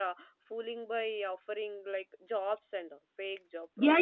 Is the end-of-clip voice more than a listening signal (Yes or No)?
Yes